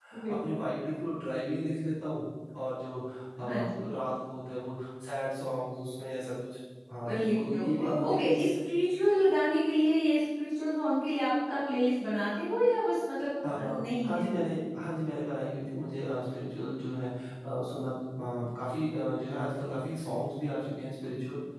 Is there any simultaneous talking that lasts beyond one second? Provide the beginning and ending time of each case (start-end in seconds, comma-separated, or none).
7.1-8.3